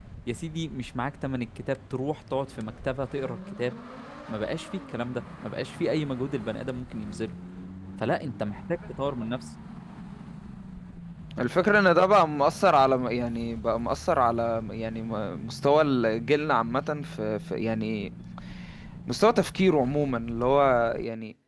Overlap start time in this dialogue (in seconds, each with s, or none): none